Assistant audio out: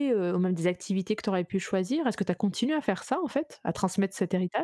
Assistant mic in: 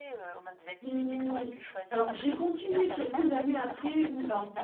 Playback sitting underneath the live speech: Yes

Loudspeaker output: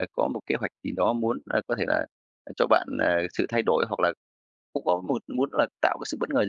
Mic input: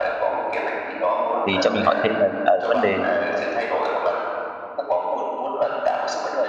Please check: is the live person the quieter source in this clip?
No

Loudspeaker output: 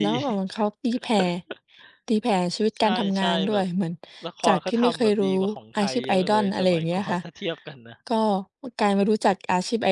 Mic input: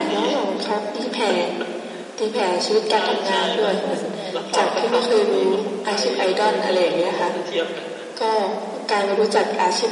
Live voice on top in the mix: No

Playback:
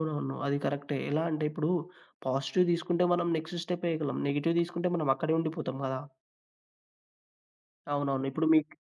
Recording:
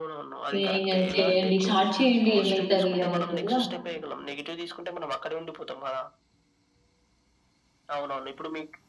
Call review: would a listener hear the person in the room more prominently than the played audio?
Yes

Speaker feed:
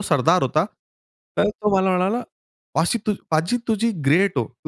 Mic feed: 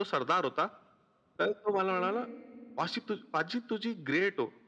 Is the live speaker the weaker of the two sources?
Yes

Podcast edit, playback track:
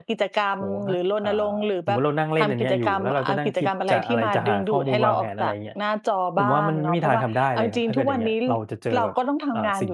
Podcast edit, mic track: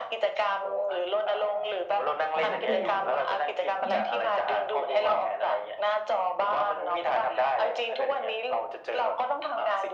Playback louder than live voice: Yes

